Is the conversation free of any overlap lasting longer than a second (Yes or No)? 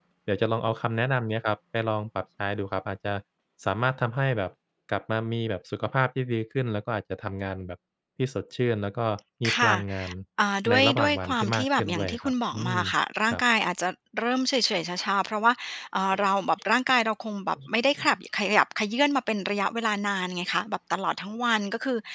No